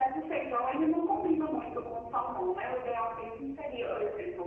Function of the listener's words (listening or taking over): listening